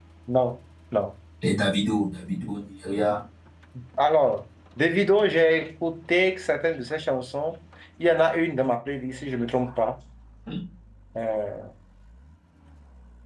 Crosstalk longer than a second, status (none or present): none